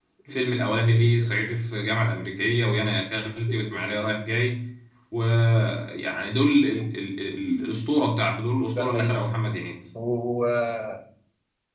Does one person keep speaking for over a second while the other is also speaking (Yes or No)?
No